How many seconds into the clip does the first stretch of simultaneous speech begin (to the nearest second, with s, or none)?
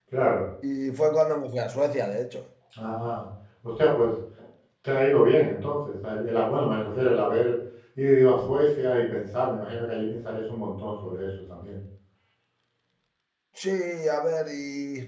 none